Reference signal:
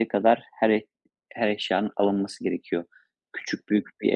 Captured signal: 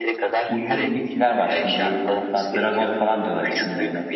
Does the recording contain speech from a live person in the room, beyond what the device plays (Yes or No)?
Yes